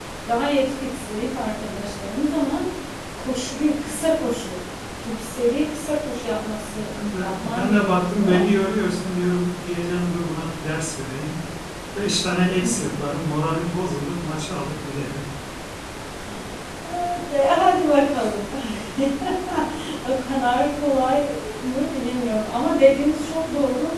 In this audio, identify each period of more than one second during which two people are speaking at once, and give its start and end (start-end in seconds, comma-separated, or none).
7.0-8.4